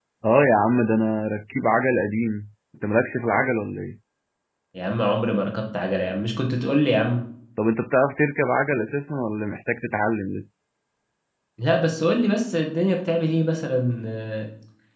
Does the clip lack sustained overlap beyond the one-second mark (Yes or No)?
Yes